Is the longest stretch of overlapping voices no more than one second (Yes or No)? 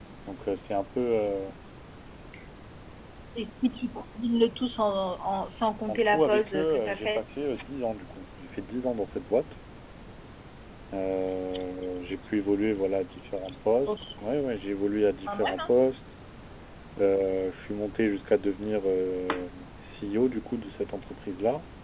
No